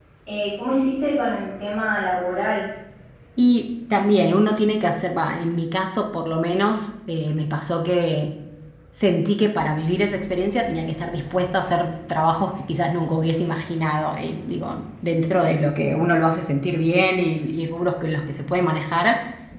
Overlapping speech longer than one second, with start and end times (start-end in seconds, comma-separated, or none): none